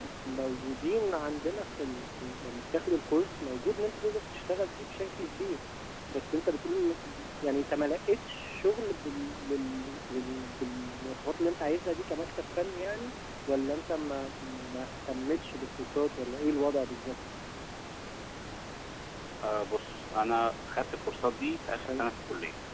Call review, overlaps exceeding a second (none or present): none